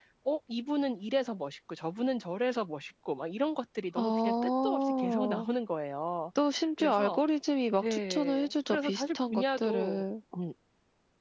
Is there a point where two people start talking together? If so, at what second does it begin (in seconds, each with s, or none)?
4.0 s